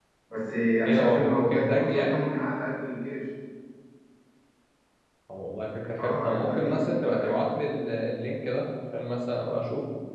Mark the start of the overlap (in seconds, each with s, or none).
0.8 s